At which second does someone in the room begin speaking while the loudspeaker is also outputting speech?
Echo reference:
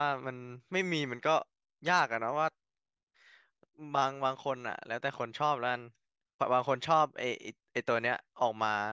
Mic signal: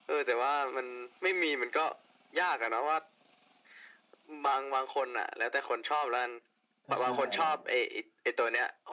6.8 s

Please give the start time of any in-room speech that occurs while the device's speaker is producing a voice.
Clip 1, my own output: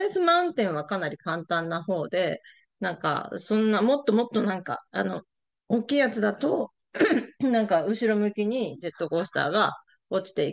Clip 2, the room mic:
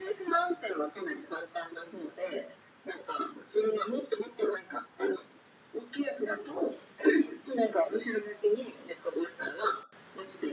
none

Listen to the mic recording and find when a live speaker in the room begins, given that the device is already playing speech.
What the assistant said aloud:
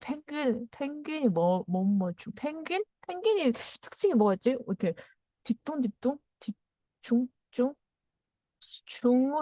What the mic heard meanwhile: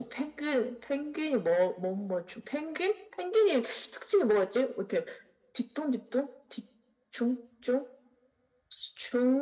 none

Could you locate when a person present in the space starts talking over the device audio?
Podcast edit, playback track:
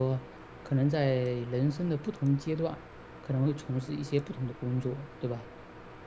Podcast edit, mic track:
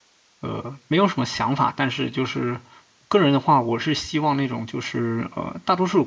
0.4 s

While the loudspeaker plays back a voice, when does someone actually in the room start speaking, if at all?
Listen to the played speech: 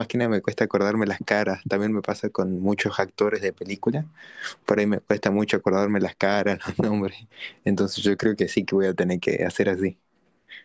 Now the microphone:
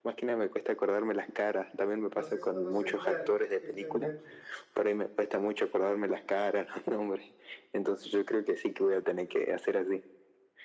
2.1 s

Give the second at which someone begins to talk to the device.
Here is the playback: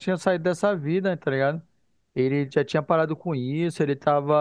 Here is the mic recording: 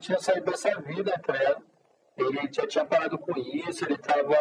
none

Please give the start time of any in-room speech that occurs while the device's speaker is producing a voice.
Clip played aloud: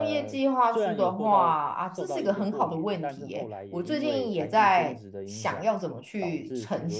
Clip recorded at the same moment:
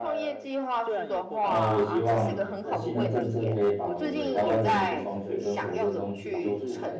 1.4 s

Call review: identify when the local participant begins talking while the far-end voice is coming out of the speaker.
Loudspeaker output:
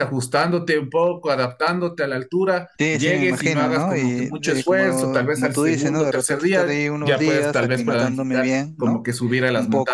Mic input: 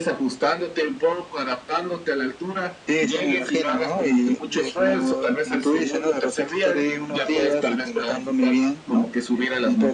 none

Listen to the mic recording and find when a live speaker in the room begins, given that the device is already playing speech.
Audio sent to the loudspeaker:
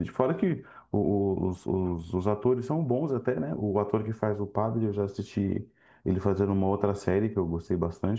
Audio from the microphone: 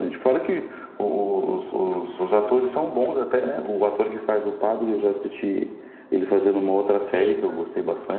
7.0 s

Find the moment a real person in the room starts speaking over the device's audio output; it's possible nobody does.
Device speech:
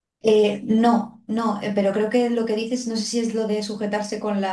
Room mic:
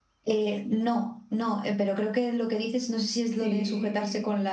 3.3 s

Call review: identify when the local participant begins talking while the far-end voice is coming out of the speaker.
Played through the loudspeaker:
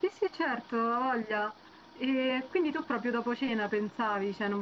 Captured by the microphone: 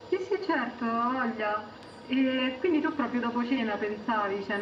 none

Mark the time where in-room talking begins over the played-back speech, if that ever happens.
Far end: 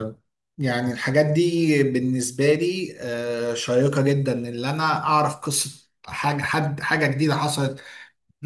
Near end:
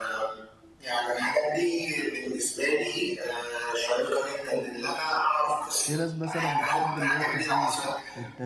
5.8 s

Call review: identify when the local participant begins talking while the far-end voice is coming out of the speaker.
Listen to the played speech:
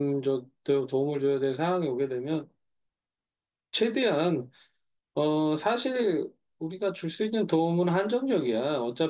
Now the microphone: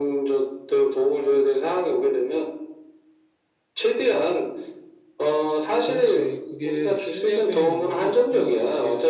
5.9 s

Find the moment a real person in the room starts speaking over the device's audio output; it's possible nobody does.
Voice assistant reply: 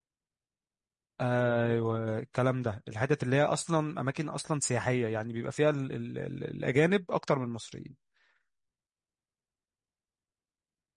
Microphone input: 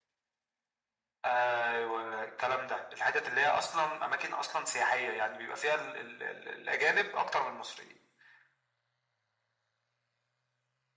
none

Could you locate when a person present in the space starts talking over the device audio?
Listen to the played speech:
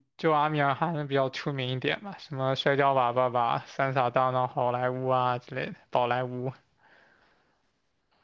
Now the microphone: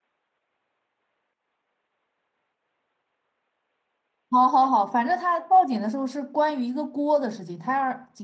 4.3 s

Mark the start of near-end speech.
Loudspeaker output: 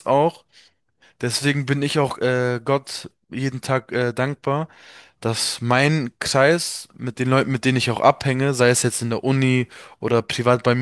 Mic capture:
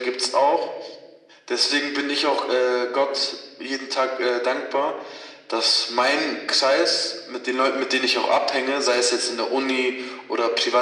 none

